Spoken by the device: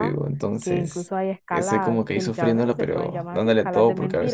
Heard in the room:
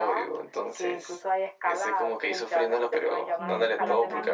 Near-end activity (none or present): present